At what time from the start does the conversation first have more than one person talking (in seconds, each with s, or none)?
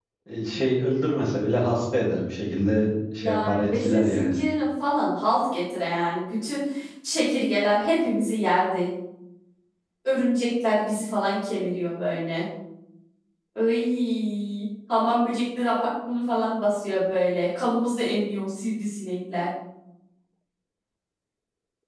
3.2 s